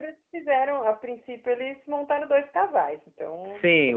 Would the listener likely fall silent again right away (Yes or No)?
No